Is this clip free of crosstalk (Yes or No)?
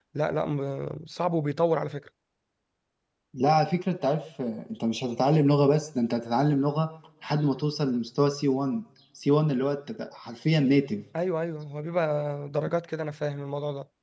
Yes